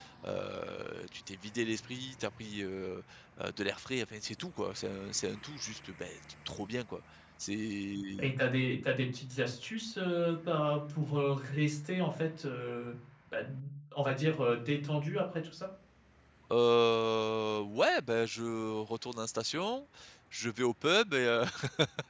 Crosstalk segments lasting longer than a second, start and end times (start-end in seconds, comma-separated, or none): none